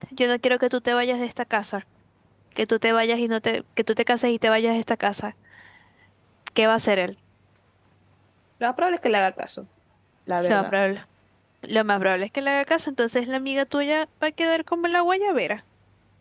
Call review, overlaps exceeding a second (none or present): none